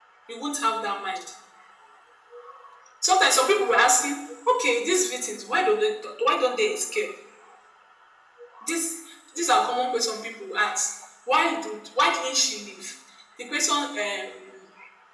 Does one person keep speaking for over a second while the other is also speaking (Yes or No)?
No